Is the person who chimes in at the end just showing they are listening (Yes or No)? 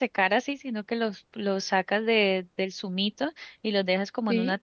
Yes